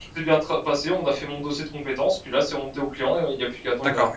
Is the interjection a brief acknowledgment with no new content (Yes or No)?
No